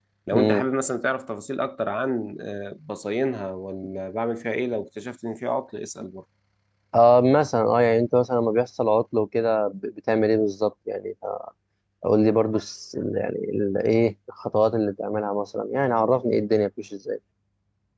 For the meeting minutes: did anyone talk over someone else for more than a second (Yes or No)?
No